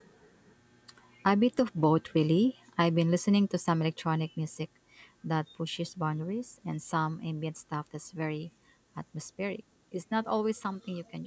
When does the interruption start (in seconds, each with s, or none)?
none